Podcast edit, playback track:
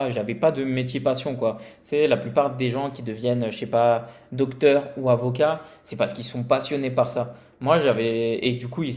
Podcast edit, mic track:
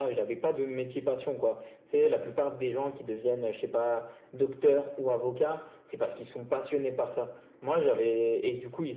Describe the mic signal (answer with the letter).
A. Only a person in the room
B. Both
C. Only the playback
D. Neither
C